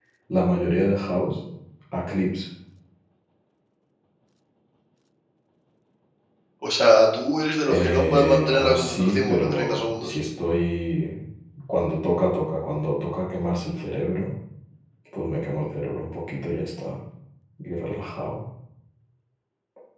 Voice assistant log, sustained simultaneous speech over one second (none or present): present